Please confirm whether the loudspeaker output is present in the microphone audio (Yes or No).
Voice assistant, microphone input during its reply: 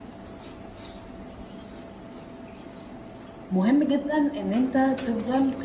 No